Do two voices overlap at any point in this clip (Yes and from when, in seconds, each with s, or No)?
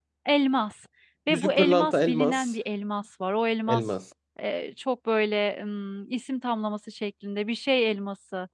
Yes, from 1.3 s